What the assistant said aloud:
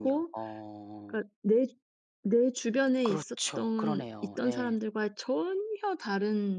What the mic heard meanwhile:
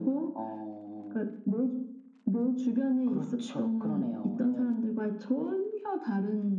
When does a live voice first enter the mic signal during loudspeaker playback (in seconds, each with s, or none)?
none